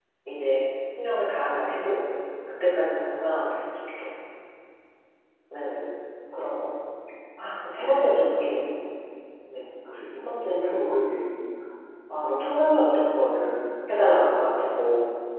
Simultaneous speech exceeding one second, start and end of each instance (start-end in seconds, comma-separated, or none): none